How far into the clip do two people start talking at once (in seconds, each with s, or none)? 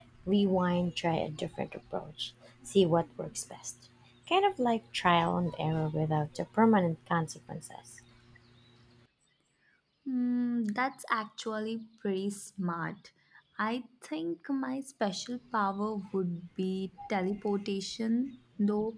none